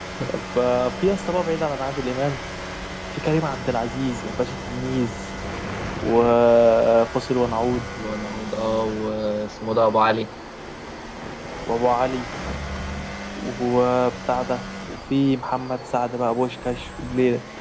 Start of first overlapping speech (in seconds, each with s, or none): none